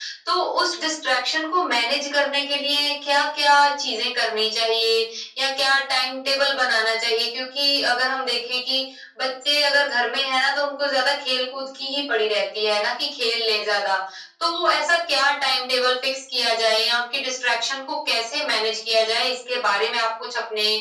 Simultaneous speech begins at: none

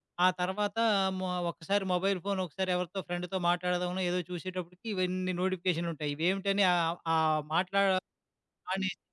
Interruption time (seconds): none

